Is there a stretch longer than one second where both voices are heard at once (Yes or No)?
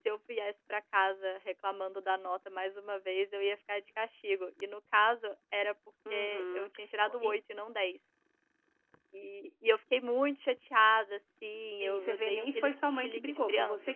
Yes